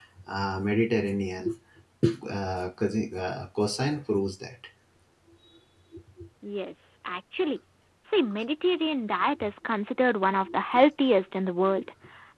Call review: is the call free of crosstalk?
Yes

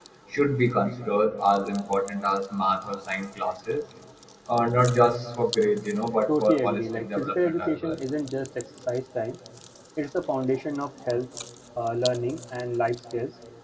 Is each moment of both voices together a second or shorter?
No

